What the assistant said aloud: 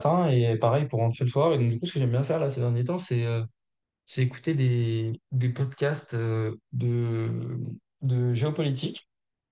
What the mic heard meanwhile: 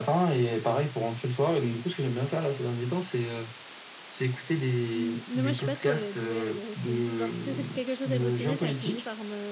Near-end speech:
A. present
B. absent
A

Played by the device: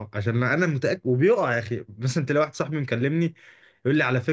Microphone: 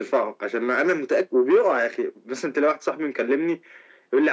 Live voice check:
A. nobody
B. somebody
A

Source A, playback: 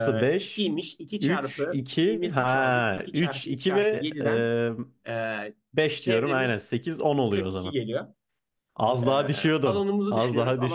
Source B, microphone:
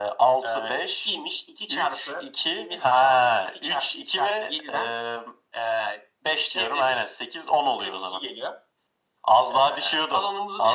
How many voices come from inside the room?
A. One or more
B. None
B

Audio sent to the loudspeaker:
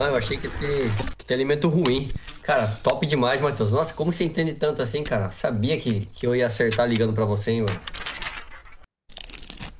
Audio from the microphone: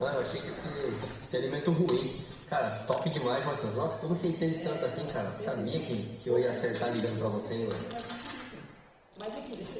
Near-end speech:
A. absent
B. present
B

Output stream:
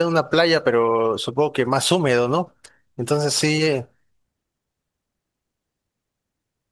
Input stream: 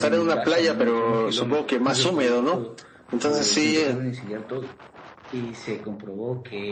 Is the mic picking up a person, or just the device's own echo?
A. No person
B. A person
B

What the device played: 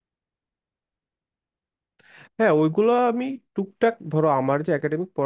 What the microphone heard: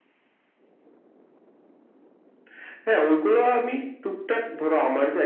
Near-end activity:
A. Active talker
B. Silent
B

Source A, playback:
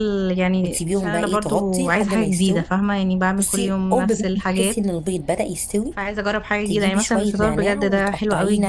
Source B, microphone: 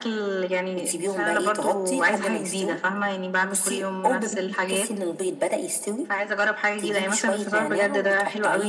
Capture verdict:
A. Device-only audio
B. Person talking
A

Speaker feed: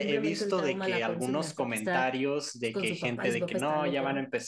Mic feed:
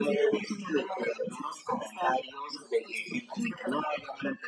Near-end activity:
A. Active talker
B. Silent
B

